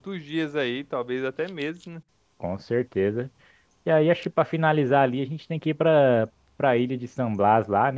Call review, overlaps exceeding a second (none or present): none